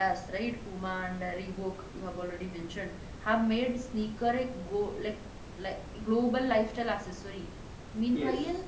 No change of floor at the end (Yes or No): Yes